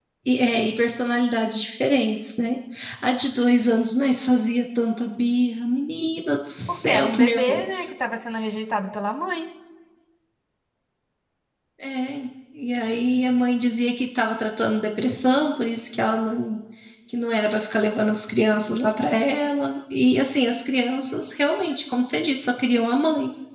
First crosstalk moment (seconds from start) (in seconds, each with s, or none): 6.7 s